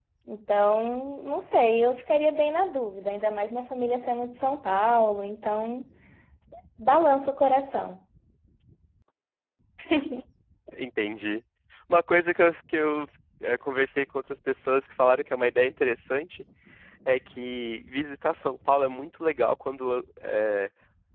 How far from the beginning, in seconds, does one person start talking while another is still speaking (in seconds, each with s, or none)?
none